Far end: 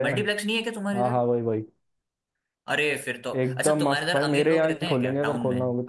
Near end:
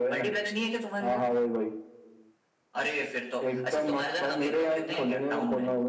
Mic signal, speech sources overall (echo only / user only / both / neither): echo only